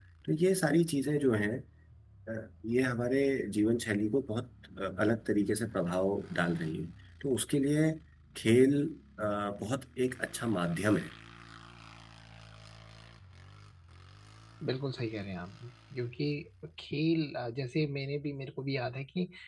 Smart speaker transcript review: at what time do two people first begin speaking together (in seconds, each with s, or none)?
none